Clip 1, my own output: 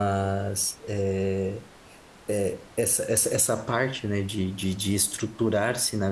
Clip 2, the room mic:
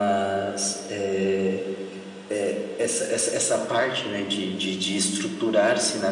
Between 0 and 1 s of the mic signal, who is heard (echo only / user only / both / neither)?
echo only